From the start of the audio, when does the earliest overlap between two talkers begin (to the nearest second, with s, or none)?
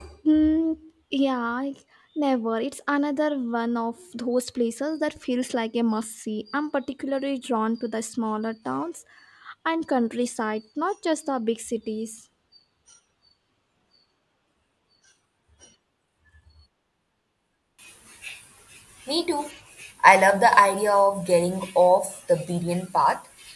none